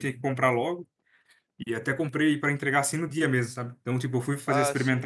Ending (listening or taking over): listening